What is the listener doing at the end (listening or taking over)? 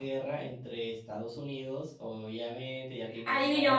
taking over